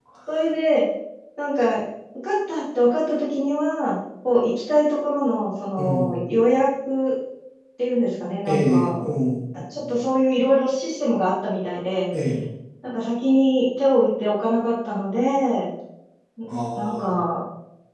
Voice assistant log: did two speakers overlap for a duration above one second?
No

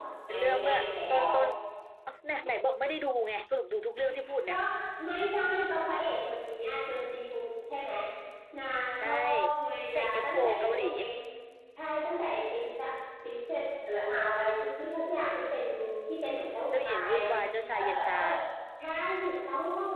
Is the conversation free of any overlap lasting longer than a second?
No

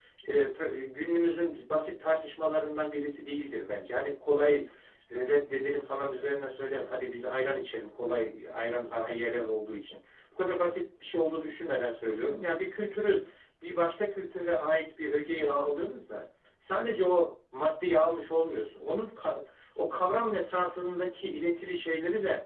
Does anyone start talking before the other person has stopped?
No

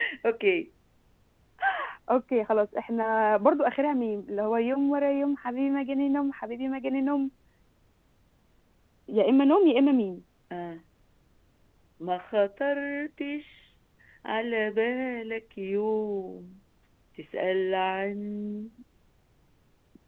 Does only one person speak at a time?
Yes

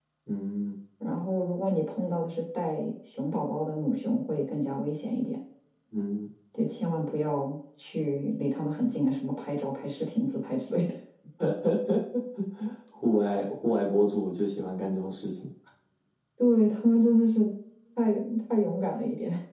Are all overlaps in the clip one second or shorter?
Yes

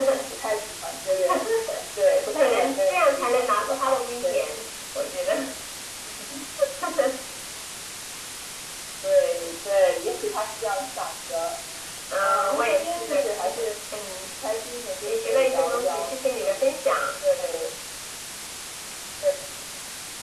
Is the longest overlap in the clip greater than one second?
Yes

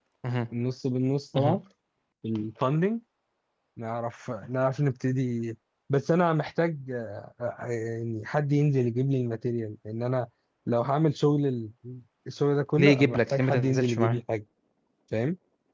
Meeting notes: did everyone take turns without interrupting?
No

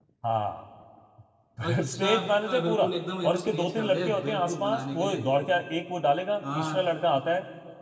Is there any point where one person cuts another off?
Yes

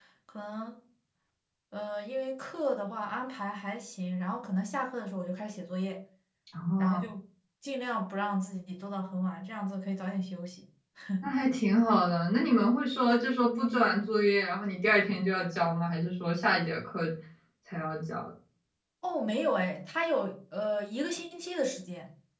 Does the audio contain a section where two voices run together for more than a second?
No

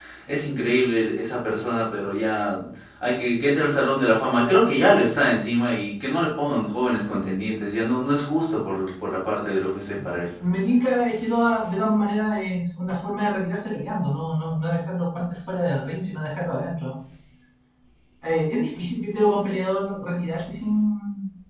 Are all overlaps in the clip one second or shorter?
Yes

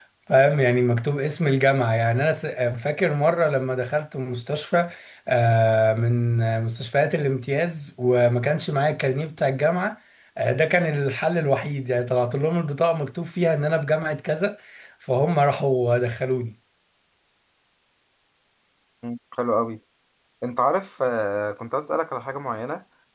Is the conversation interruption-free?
Yes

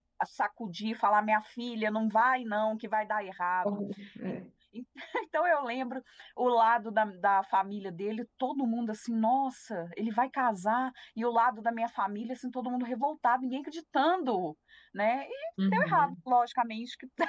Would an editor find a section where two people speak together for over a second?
No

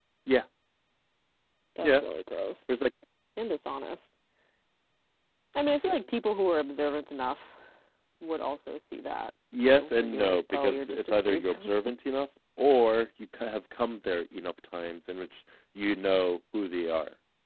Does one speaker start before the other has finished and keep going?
Yes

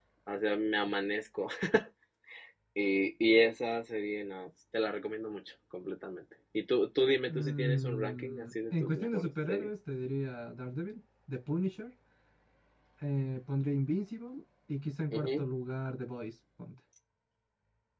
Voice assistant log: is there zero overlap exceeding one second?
No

